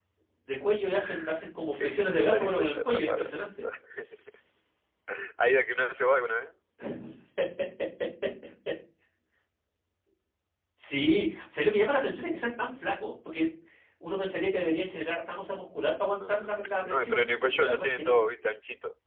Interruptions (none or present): present